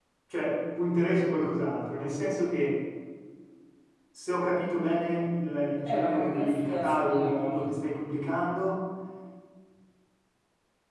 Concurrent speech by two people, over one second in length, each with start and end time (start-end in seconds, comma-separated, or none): 5.8-7.7